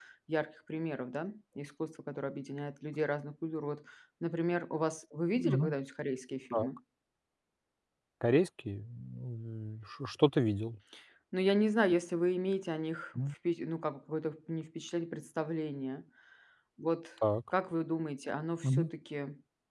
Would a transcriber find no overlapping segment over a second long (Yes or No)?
Yes